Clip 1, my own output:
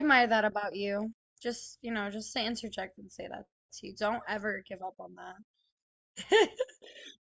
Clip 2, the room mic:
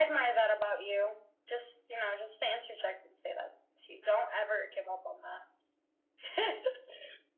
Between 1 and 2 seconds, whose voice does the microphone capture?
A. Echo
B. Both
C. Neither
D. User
A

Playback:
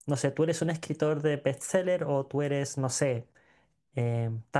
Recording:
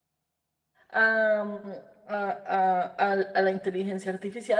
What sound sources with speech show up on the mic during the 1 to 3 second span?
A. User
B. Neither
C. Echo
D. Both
A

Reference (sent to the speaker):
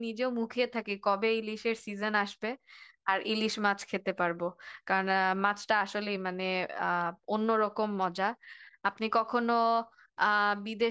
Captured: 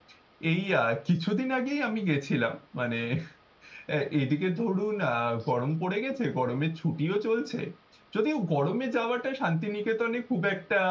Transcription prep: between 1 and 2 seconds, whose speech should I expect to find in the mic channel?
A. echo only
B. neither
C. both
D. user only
D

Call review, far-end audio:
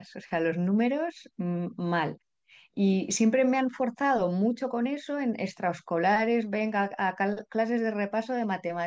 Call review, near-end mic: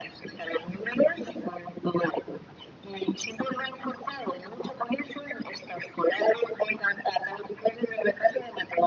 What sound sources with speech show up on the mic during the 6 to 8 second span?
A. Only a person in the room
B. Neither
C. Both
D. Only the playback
D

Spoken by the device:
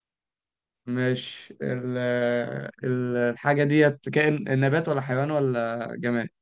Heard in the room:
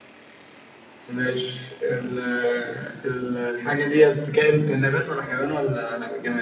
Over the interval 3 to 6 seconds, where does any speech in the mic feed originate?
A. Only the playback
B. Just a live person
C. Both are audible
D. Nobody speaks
A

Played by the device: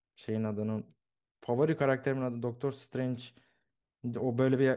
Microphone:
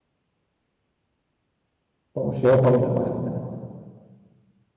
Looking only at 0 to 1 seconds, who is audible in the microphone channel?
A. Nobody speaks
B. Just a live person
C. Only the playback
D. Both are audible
A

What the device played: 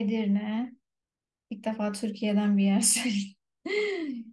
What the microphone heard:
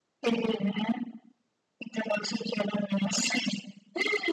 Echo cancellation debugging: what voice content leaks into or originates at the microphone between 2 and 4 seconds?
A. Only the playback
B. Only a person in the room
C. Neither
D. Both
A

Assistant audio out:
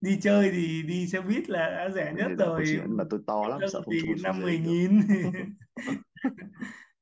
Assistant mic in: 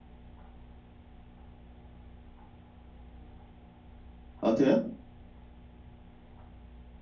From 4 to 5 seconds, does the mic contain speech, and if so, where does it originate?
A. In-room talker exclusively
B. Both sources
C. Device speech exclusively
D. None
A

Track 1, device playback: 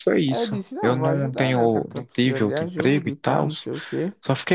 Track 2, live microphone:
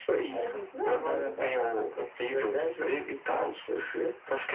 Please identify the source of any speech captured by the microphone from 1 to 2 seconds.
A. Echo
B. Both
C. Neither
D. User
A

